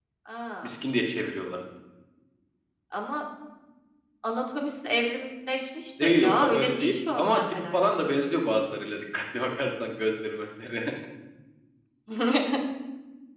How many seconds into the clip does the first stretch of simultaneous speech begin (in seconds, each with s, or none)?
6.0 s